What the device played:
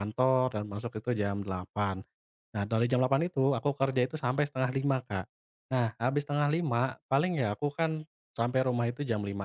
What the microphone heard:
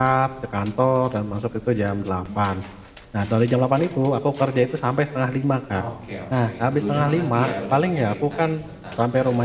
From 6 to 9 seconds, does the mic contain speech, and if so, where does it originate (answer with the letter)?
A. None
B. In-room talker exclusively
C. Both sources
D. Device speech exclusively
C